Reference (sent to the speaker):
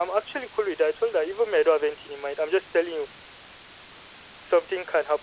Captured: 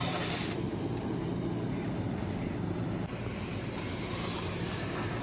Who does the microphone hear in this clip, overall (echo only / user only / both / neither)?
neither